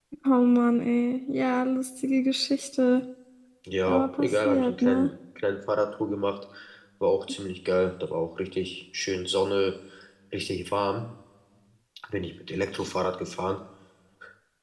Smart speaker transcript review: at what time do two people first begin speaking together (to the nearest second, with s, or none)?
4 s